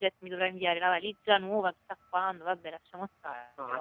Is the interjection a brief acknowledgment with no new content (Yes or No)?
No